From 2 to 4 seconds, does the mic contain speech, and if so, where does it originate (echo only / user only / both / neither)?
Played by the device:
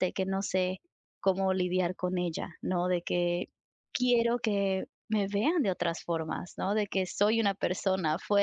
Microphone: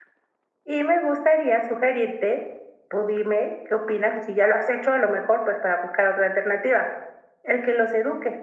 user only